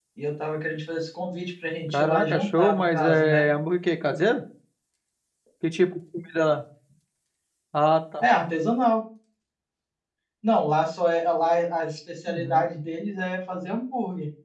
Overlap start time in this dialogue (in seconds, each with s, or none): 1.9 s